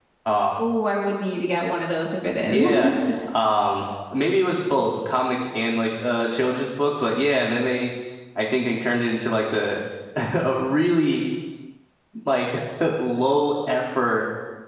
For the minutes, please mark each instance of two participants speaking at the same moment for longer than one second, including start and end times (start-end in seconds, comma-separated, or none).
none